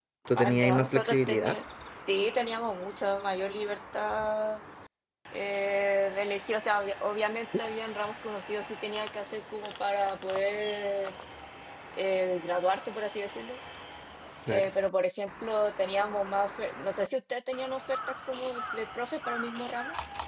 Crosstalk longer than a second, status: present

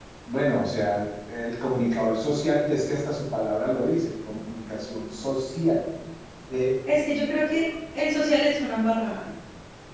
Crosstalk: none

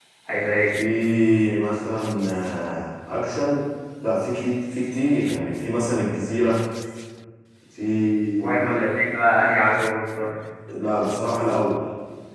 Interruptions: none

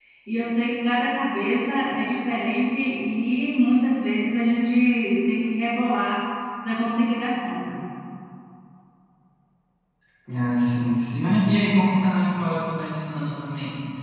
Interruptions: none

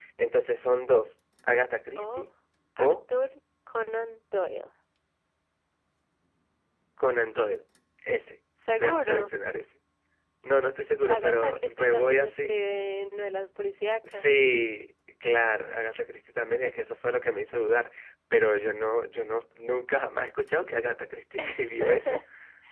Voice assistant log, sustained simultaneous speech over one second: present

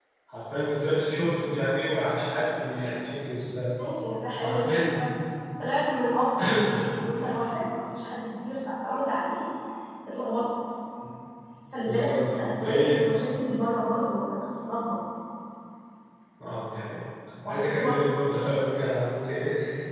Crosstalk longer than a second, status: present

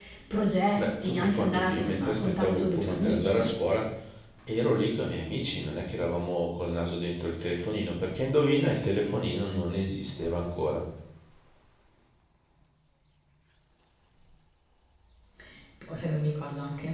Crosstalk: present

